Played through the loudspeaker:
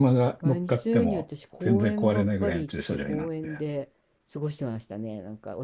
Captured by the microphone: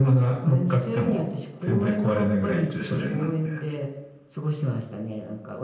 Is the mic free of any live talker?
Yes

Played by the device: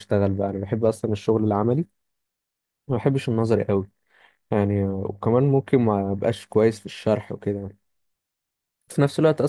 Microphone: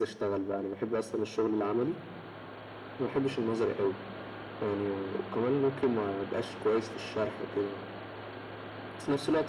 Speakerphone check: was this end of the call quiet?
Yes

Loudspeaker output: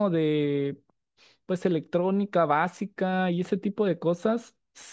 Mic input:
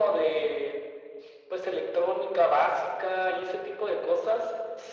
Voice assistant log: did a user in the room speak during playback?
No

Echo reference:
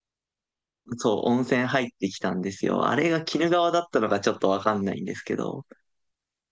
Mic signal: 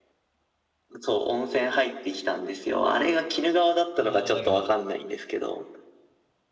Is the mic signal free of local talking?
No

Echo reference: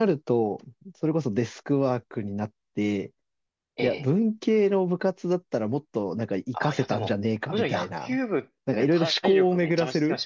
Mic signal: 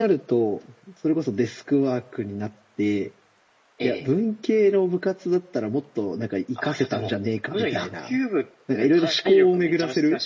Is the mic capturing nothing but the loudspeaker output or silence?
Yes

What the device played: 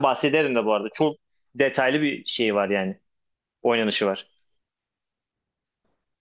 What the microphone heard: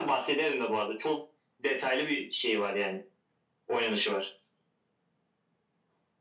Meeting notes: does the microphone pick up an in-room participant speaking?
No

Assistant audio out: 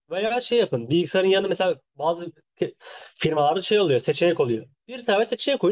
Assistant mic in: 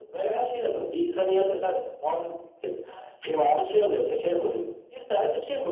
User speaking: No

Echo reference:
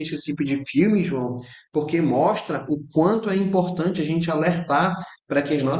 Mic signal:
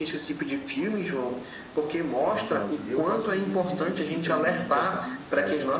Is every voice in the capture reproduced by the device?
No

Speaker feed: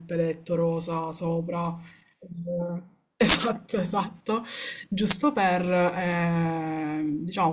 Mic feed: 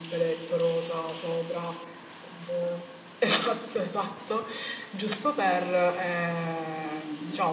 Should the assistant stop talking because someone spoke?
No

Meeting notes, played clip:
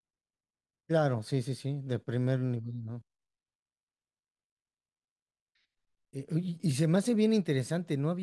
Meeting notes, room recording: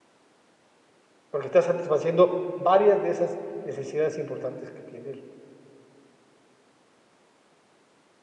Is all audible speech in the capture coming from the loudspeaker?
No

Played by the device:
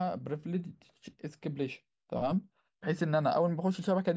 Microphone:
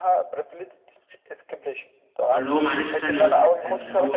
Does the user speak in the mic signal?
Yes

